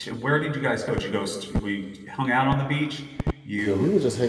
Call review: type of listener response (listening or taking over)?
taking over